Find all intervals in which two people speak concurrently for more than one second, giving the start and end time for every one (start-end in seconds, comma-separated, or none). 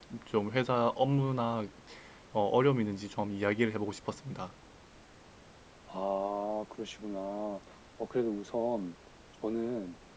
none